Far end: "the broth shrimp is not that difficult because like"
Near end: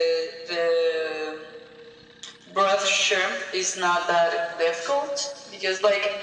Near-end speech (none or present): none